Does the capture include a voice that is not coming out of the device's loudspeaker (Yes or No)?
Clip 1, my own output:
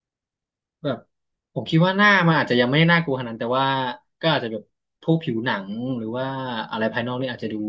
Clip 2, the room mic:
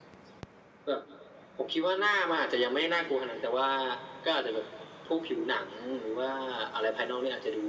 No